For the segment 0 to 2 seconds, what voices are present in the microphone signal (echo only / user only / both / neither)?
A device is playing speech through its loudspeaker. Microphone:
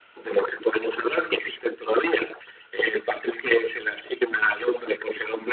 echo only